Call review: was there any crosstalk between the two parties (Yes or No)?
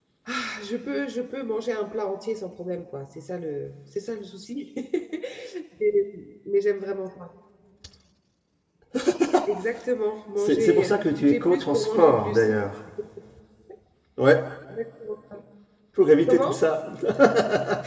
Yes